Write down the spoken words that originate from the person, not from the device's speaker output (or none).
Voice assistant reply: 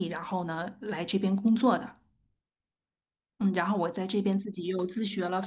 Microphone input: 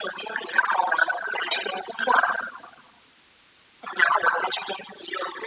none